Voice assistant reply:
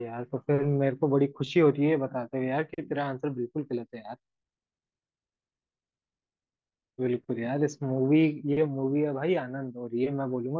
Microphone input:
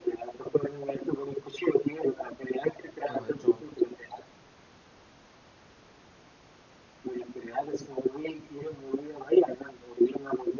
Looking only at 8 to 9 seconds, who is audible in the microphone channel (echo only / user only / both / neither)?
echo only